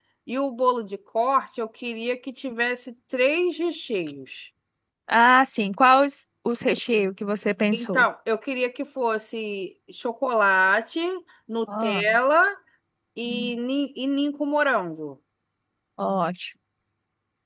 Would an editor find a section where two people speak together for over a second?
No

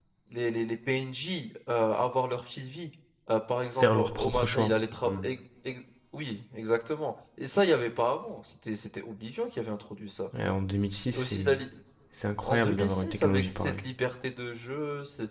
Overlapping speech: Yes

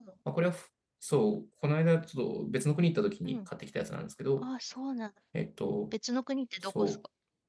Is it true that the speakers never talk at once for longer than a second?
Yes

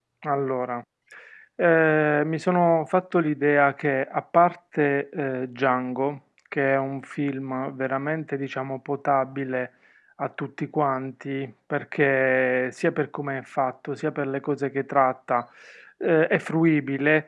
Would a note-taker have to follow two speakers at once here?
No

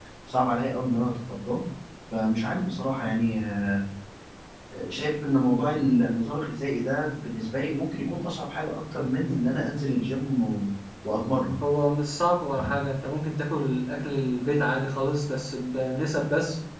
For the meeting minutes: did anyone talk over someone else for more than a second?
No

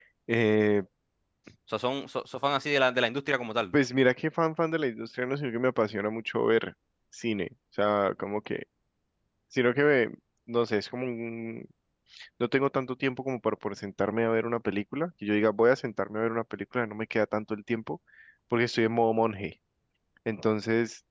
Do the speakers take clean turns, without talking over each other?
Yes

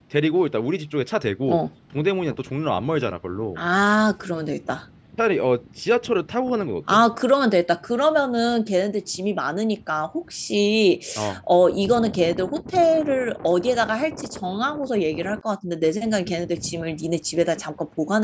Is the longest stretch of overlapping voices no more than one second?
Yes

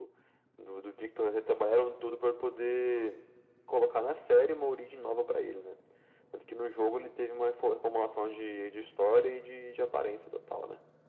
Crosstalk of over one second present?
No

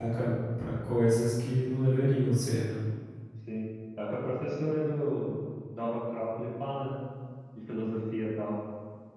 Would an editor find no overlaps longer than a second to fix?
Yes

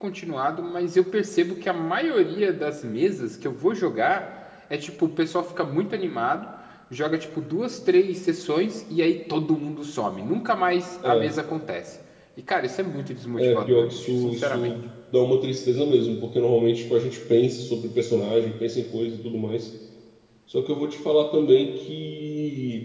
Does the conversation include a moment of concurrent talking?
Yes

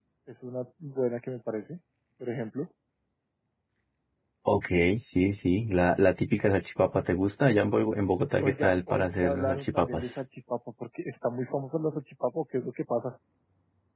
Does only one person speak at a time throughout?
No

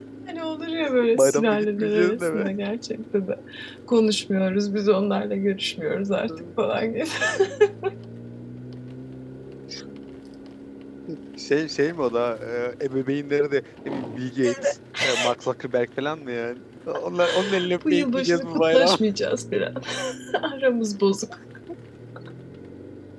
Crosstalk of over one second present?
Yes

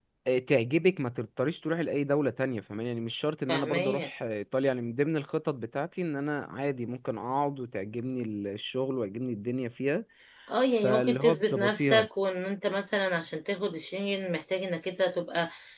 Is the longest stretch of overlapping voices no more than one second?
No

